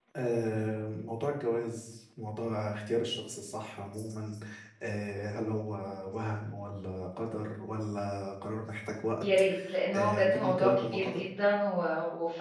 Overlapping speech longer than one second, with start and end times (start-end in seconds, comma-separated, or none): 9.9-11.2